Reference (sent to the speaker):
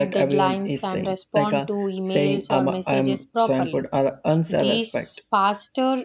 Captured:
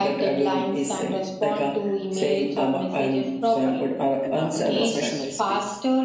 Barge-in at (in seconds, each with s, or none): 4.2 s